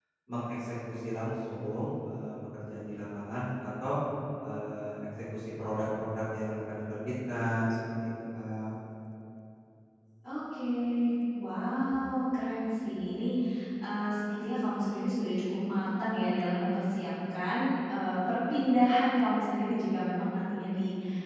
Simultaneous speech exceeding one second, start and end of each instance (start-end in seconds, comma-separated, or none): none